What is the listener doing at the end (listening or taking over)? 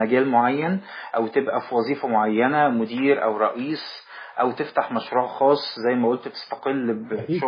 listening